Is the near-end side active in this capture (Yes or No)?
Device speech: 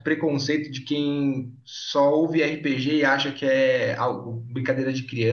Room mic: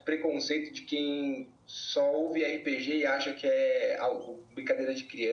No